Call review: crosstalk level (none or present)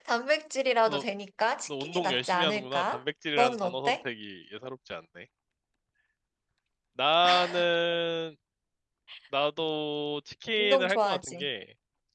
present